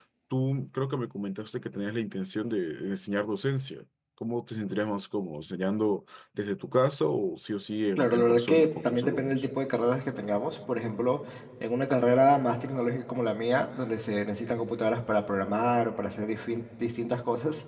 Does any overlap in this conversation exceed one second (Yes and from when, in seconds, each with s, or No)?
Yes, from 8.0 s